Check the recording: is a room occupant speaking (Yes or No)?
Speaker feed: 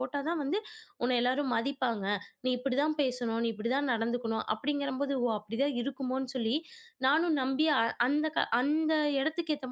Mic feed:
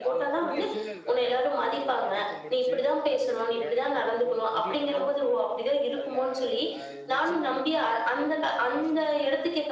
Yes